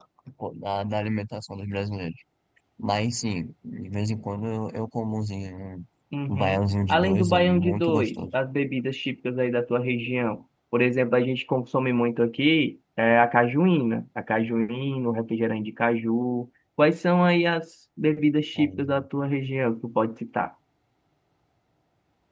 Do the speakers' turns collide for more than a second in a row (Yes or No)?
Yes